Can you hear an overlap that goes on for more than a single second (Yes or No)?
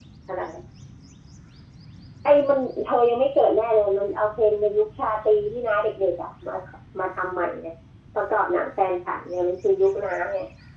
No